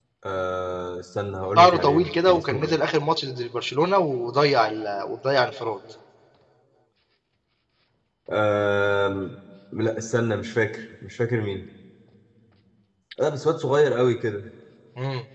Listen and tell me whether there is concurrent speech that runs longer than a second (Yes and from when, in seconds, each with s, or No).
Yes, from 1.6 s